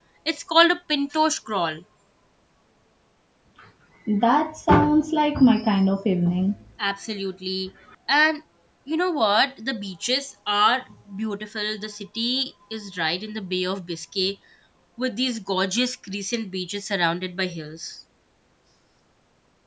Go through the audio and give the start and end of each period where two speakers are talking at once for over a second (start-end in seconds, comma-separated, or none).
none